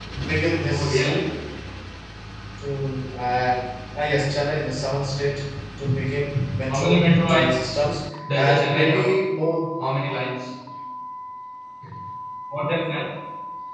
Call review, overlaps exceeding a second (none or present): present